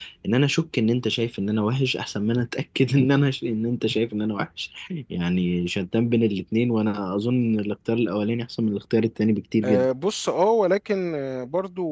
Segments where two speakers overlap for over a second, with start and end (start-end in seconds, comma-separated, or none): none